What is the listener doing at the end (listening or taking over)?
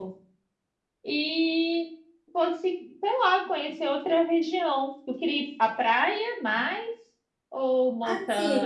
taking over